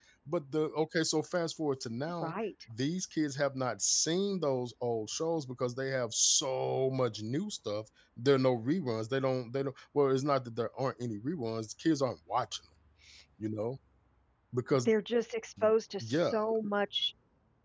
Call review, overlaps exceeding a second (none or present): none